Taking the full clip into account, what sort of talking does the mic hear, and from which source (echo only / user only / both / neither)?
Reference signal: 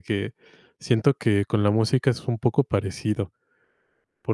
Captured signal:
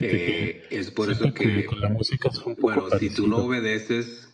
both